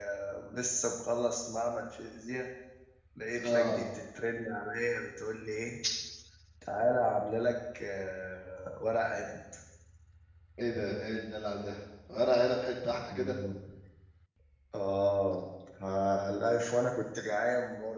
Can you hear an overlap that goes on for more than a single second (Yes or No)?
No